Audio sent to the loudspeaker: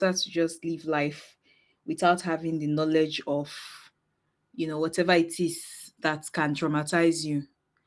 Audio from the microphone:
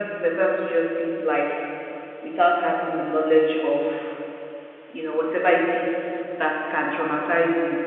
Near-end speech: none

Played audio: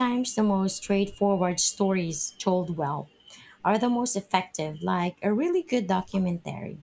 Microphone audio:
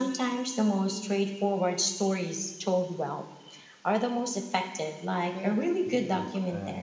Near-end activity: present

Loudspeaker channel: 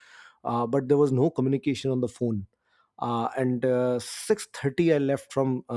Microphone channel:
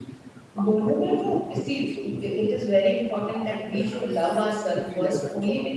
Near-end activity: present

